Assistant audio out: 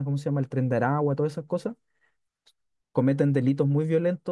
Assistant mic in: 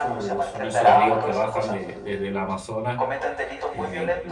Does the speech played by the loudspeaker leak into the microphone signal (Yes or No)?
Yes